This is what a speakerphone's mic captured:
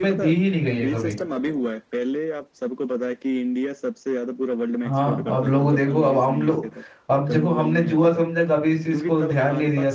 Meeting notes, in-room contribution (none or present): present